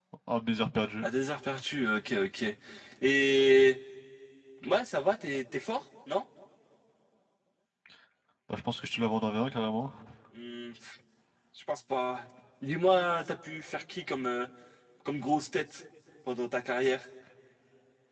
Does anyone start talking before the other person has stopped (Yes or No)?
No